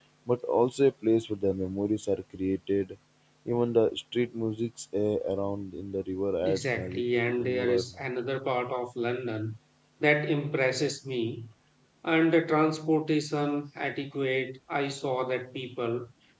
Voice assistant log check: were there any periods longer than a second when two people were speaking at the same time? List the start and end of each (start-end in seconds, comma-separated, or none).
6.4-8.0